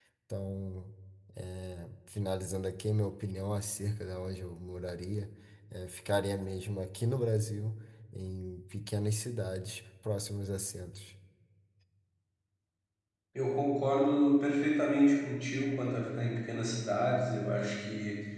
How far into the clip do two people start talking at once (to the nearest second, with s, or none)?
none